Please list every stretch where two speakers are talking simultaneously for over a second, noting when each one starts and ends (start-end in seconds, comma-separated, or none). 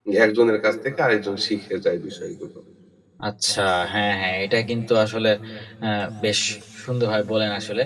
none